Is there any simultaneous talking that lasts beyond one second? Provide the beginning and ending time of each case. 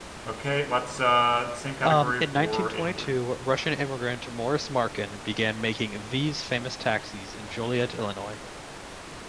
1.8-3.1

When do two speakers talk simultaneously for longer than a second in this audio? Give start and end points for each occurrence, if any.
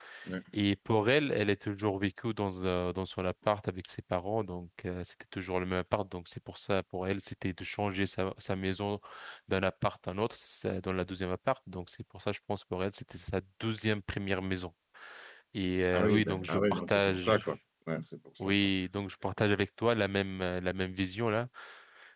15.9-17.4

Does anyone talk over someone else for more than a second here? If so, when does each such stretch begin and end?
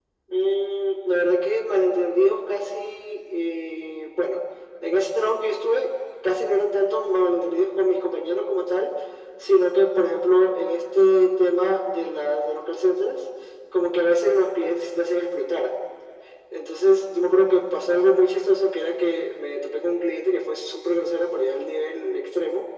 none

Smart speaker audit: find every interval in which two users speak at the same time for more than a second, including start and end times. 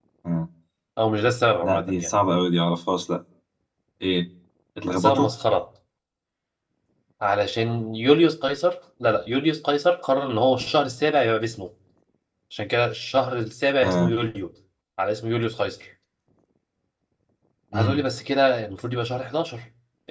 none

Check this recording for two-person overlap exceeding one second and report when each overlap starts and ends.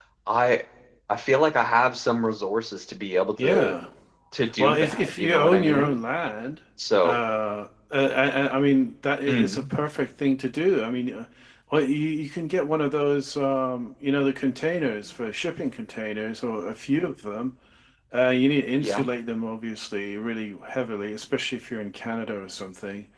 4.6-6.0

